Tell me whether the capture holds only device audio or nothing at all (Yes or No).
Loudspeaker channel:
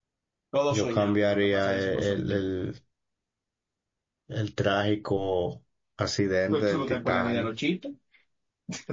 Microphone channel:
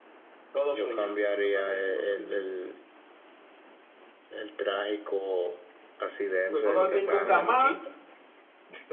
No